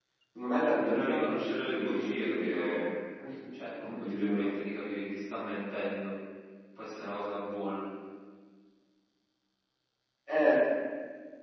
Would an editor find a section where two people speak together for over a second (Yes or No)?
Yes